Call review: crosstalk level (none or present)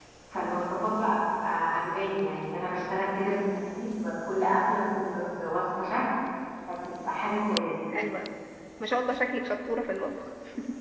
none